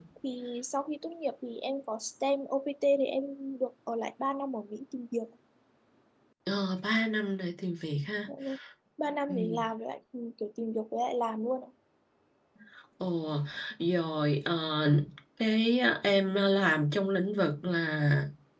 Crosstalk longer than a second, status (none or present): none